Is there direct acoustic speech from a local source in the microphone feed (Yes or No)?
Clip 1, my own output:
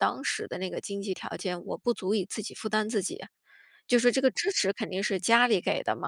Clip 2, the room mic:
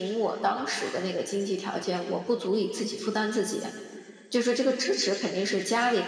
No